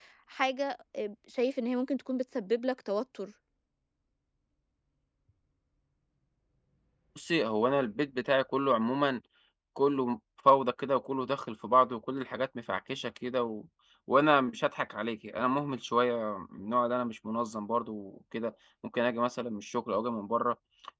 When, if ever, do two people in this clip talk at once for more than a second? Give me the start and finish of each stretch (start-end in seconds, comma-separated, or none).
none